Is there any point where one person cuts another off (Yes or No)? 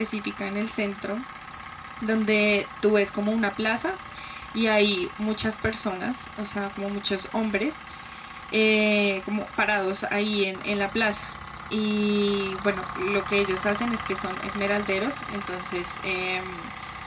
No